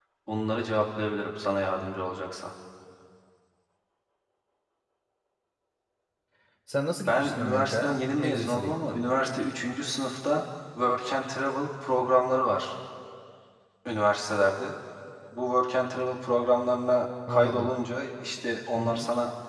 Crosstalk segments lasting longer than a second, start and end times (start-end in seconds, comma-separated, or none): 7.1-9.0